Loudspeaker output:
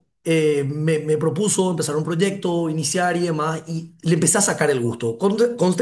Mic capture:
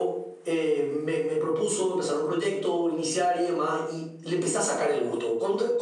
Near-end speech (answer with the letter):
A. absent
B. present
A